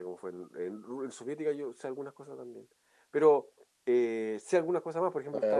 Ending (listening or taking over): taking over